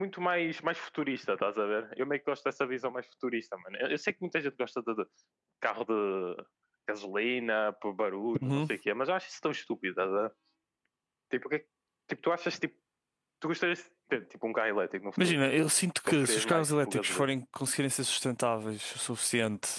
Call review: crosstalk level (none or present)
present